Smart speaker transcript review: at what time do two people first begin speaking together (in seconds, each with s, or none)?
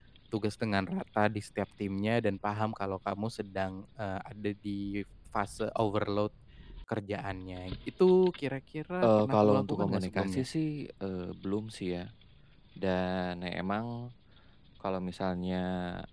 9.0 s